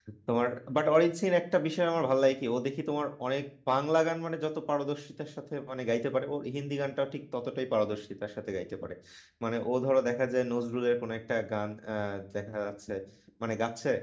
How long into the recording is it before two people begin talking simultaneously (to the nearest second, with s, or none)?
none